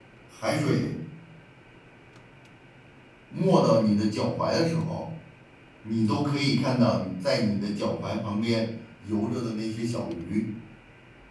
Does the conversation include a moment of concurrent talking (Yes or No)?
No